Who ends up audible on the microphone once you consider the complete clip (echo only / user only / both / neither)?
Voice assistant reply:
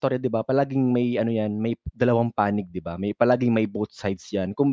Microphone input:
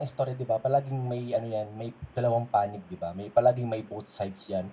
echo only